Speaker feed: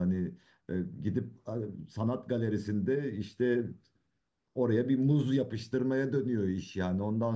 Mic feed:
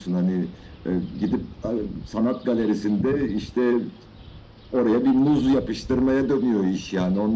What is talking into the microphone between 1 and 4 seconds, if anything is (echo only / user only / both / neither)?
echo only